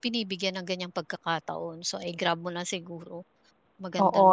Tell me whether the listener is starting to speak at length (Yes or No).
Yes